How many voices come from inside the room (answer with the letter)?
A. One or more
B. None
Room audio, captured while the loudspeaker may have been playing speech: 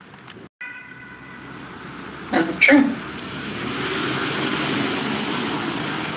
A